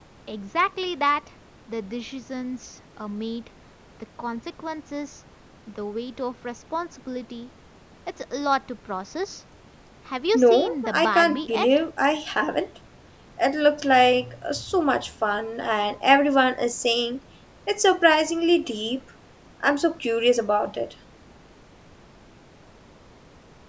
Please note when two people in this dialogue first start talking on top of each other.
10.3 s

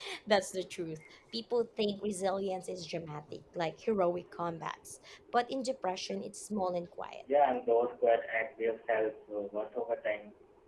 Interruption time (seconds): none

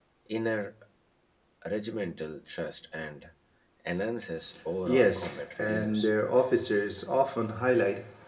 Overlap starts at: 4.8 s

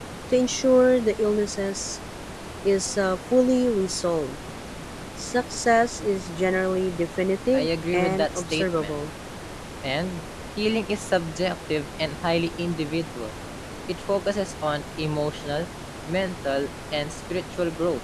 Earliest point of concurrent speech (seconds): 7.5 s

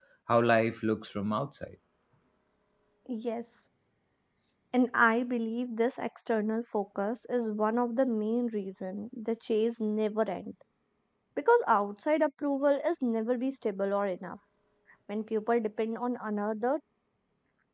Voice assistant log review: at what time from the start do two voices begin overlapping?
none

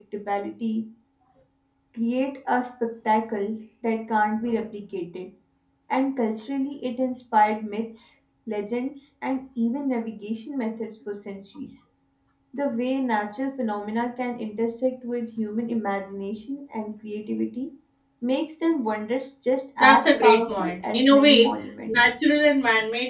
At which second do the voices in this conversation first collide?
19.8 s

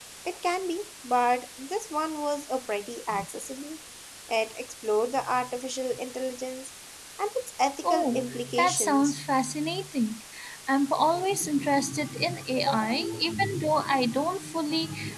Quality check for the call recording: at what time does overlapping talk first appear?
7.8 s

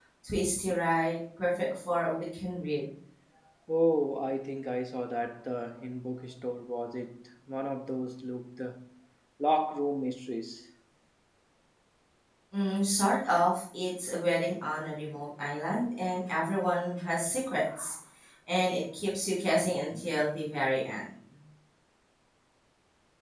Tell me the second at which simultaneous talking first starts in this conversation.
none

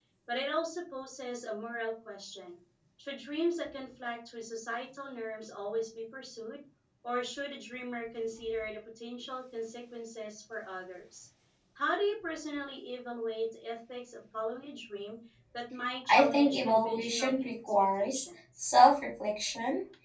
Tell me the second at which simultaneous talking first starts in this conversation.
16.1 s

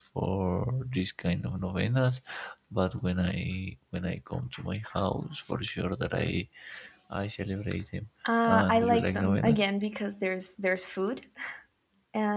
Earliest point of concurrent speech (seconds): 8.2 s

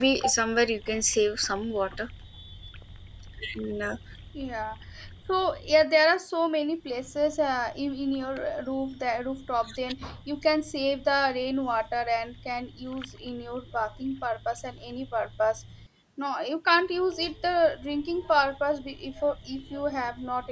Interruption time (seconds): none

